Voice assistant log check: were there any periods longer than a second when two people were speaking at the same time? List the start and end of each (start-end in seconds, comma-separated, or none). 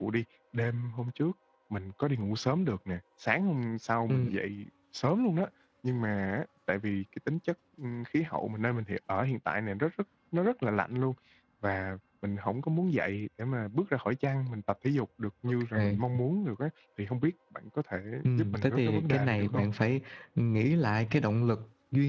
18.4-19.7